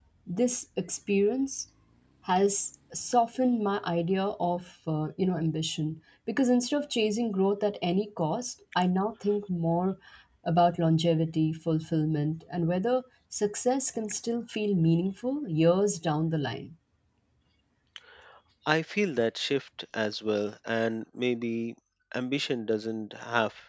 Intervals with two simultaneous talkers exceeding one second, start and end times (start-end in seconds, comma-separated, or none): none